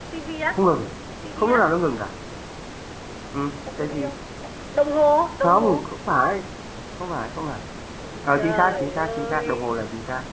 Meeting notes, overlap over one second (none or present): present